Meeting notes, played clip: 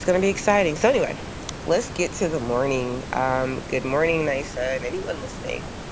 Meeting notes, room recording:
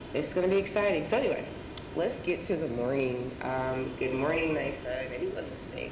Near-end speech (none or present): none